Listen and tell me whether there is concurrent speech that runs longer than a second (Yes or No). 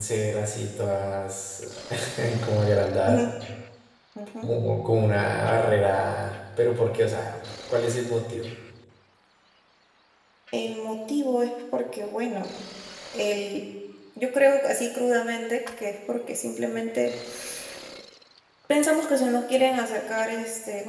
No